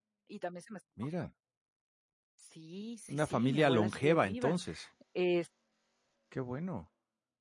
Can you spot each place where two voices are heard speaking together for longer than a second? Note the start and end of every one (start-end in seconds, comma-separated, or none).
3.1-4.5